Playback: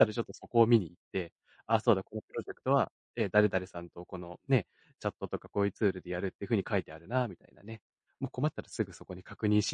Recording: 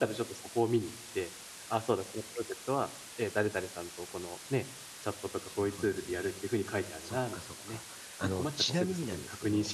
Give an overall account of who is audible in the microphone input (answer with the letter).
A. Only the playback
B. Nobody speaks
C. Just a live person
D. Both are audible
D